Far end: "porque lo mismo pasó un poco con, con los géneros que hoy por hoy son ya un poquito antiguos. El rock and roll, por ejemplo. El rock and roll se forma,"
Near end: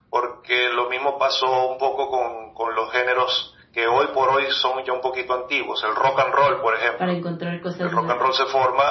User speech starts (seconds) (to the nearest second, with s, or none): 7 s